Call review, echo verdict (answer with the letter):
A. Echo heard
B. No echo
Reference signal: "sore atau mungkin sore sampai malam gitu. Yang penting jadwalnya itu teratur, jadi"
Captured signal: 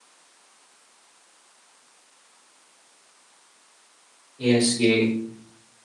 B